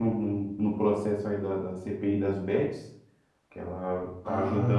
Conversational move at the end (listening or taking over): listening